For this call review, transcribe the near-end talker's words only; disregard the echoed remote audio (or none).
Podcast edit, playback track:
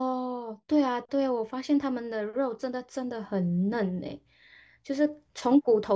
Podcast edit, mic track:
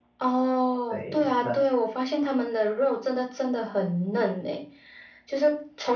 对，那